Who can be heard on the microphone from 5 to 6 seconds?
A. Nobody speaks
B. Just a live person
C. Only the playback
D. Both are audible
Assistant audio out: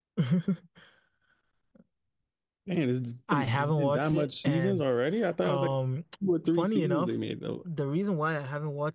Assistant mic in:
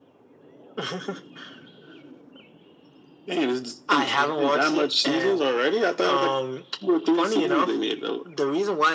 C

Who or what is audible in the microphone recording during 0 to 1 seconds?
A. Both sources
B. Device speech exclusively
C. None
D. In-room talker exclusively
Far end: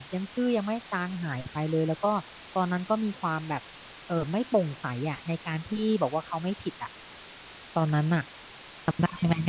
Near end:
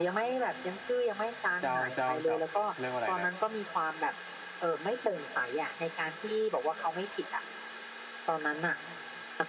B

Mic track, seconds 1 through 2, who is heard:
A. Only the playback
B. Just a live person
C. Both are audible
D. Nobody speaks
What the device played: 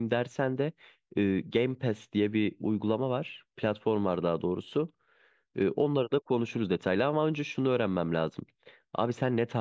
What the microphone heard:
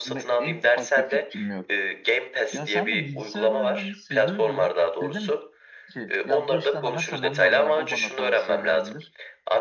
C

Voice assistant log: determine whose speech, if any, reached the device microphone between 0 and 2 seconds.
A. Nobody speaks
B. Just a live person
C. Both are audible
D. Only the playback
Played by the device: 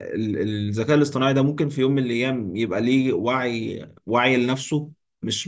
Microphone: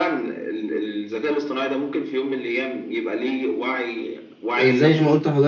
D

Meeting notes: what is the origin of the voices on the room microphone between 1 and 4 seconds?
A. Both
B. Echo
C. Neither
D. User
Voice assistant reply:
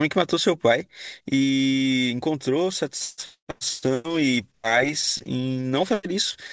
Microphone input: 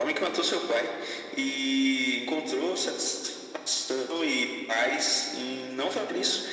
B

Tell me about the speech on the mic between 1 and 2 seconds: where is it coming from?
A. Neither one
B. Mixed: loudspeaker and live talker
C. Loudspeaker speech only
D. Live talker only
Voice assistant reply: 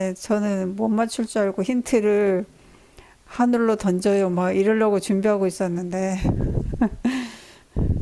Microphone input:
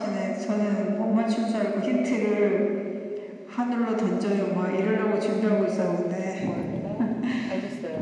C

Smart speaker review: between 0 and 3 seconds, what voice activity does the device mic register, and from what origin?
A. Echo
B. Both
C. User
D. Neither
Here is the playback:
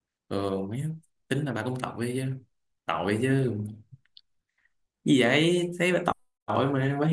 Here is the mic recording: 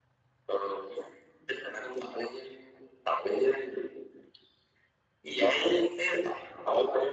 A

